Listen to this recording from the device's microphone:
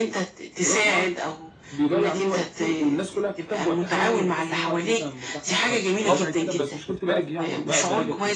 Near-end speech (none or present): present